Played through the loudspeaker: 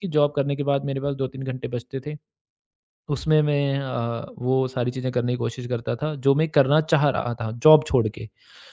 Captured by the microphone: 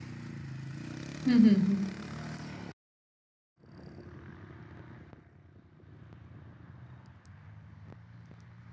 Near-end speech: present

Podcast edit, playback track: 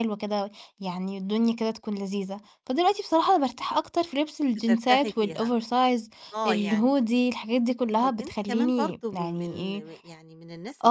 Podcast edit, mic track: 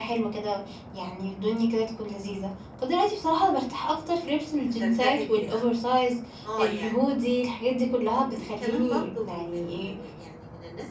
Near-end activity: none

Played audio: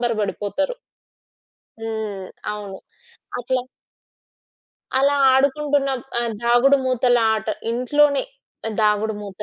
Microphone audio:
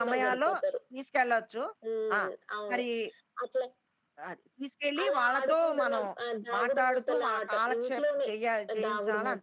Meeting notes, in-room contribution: present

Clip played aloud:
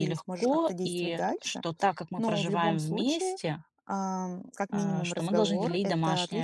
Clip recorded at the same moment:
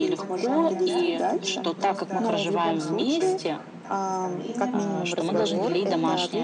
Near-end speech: present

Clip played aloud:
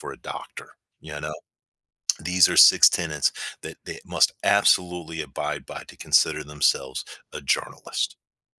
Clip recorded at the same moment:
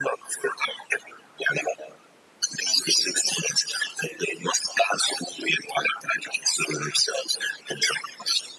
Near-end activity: none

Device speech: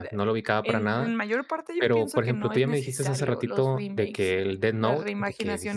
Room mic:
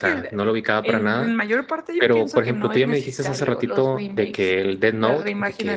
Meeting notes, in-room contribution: none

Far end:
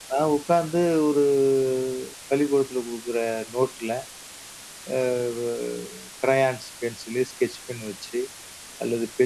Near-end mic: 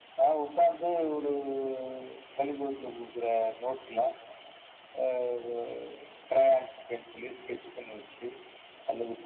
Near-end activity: none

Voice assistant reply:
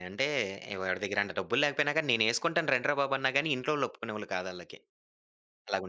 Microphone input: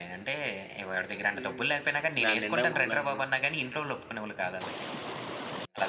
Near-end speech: present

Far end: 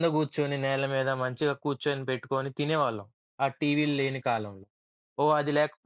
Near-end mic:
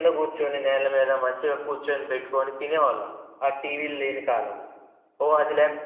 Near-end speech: none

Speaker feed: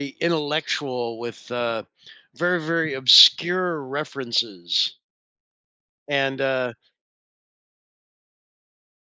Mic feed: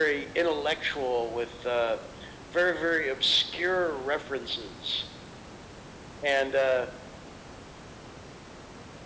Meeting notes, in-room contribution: none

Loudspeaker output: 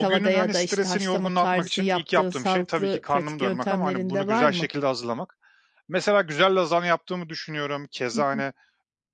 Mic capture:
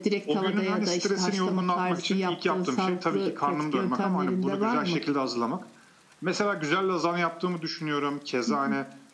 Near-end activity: none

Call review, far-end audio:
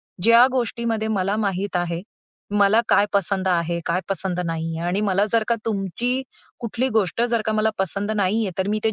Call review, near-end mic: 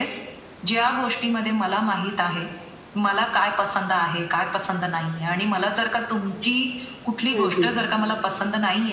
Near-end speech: present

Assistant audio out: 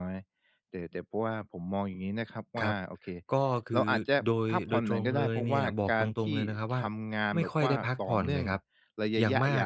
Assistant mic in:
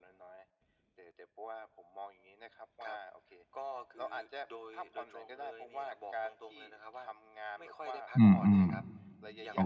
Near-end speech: present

